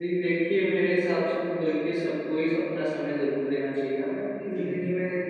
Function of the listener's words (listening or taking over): listening